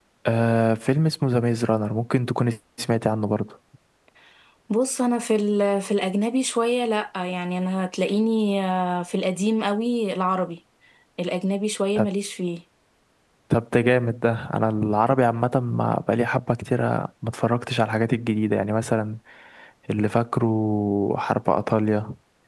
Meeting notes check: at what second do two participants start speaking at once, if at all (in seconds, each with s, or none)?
none